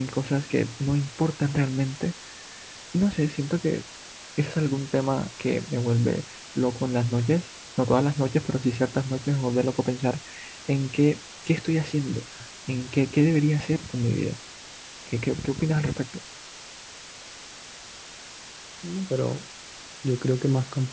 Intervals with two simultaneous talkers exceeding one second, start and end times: none

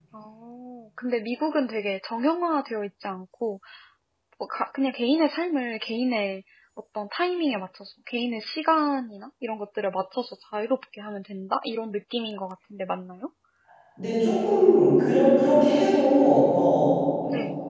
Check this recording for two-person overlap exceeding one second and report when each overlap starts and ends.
none

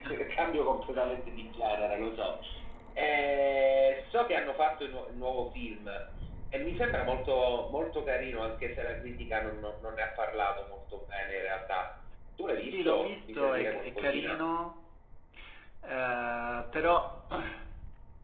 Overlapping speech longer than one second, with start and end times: 12.6-14.4

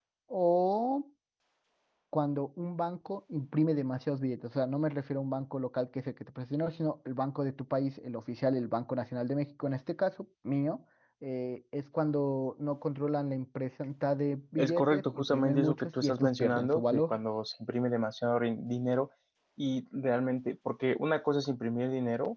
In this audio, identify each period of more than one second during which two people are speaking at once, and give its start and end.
14.6-17.2

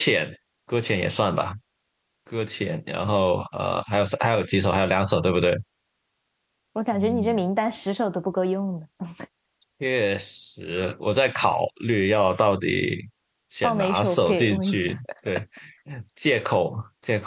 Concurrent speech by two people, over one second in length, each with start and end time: 13.6-14.9

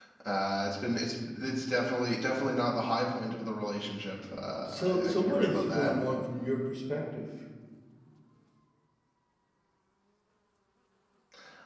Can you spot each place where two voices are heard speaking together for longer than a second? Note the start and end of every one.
4.7-5.9

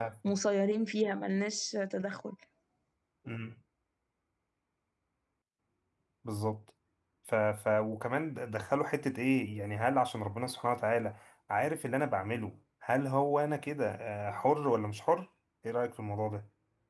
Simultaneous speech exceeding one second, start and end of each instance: none

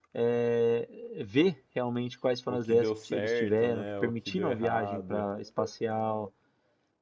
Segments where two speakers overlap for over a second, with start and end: 2.5-5.3

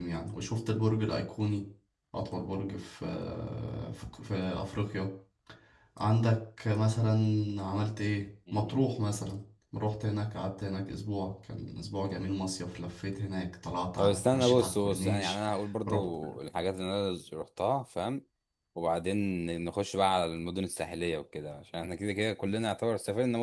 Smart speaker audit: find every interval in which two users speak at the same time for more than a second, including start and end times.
14.0-15.3

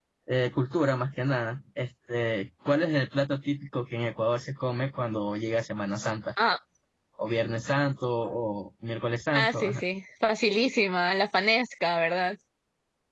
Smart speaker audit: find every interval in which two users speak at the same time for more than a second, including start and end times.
none

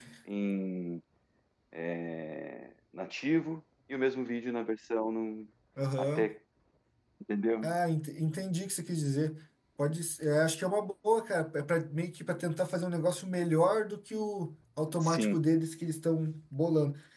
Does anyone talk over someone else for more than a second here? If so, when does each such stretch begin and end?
none

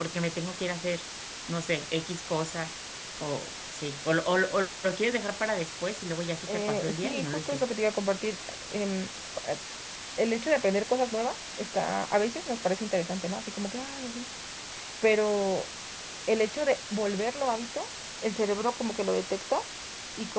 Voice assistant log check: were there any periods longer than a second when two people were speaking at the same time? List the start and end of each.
6.5-7.7

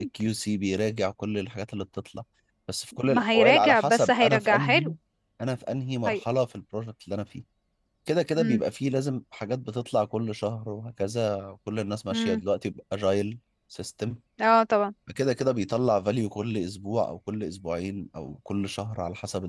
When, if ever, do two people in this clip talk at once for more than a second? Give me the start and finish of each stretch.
3.0-4.9

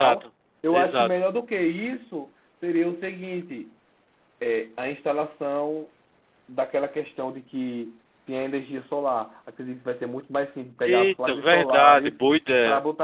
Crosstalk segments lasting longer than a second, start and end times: 10.8-12.1

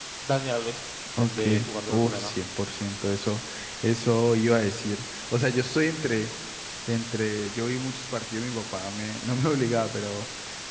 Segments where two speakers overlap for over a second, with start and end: none

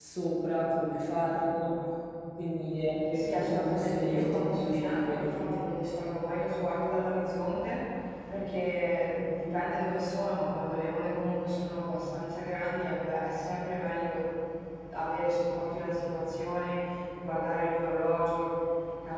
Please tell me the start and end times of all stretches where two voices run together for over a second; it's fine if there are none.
3.3-5.4

